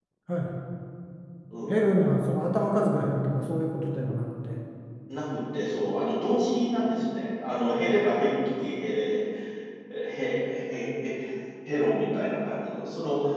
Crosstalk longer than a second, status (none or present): none